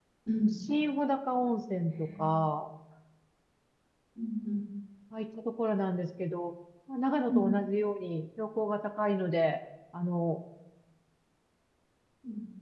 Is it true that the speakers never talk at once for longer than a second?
Yes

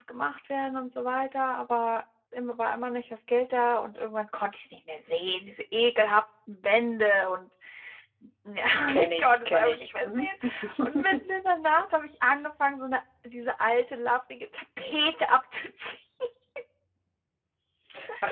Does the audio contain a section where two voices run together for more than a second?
Yes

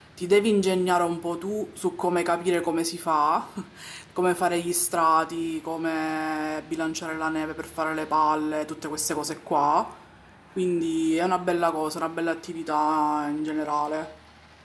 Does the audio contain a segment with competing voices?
No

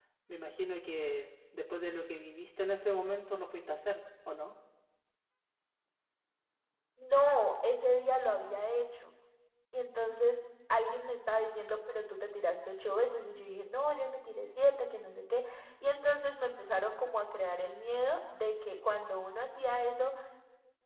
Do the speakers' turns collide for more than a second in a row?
No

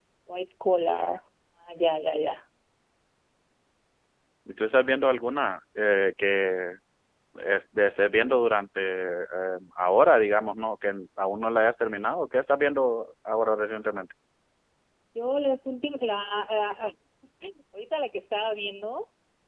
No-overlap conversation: Yes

